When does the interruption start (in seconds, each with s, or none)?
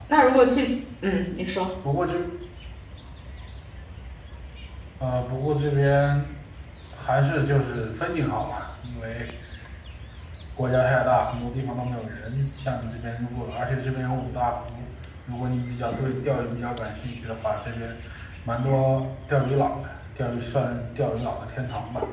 none